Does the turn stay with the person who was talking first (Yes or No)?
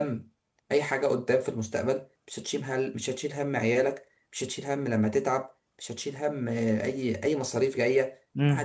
No